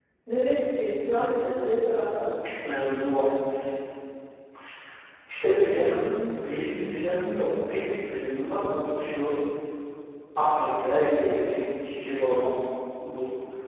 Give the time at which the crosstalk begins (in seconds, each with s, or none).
none